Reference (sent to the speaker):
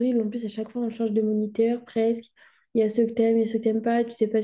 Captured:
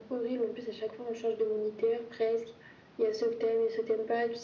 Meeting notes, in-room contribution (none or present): none